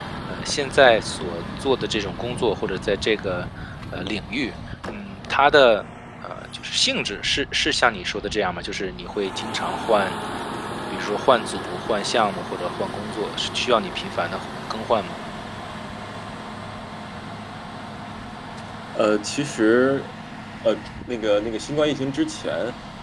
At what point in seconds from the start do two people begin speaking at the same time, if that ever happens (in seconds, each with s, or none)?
none